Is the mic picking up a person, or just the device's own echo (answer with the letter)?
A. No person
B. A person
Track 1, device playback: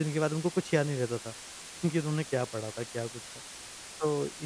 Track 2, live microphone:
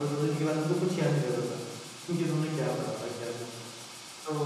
A